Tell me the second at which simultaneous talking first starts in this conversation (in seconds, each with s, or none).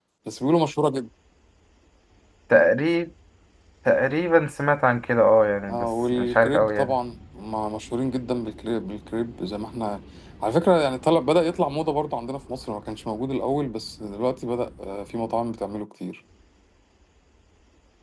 5.7 s